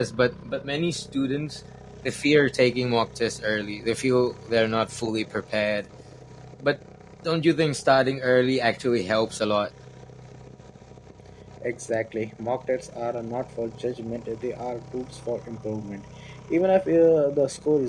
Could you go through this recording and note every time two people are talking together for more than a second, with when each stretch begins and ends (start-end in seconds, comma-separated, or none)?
none